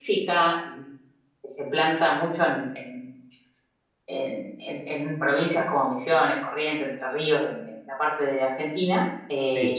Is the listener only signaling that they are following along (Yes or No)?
Yes